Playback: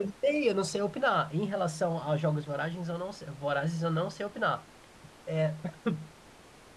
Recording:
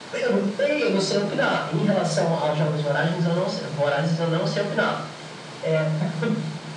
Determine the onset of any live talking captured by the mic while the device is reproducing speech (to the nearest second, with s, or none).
none